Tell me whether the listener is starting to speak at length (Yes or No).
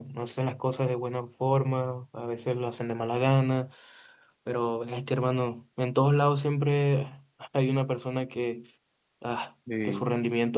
No